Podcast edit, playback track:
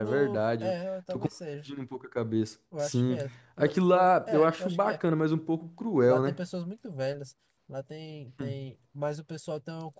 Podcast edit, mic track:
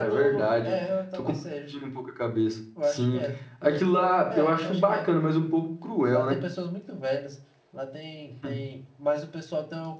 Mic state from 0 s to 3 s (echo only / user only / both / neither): echo only